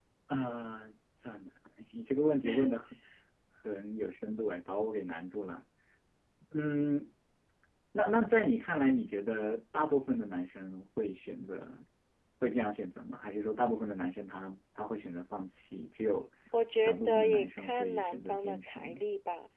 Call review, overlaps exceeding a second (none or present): present